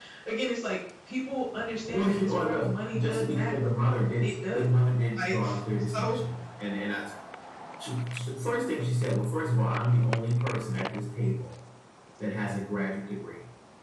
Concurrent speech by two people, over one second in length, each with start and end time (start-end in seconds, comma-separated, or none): 1.9-3.6